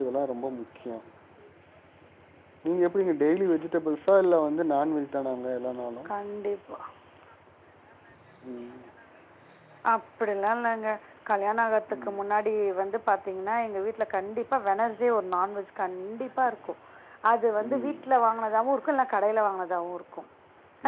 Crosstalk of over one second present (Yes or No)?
No